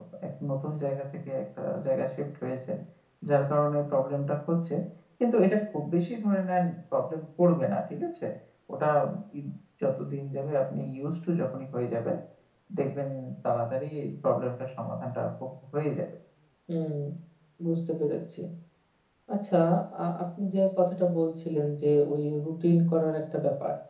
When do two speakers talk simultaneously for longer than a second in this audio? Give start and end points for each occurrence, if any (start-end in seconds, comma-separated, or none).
none